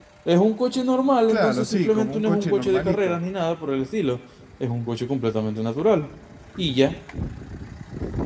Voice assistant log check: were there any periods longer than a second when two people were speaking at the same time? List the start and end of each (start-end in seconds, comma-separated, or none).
1.3-3.2